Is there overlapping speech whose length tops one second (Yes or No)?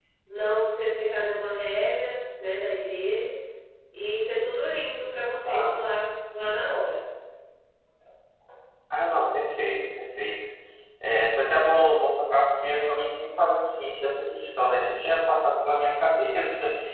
No